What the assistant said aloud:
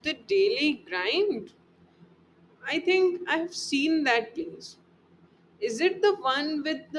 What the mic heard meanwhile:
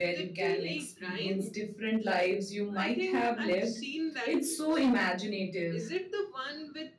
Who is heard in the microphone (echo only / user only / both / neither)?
both